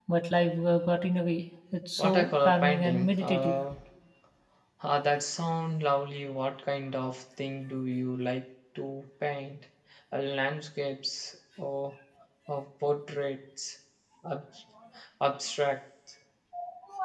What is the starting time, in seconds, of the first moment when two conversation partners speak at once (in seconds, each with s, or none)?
2.0 s